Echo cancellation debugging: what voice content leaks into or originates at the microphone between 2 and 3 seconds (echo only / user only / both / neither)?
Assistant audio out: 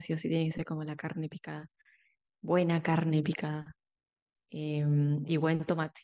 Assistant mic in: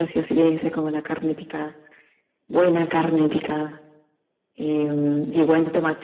echo only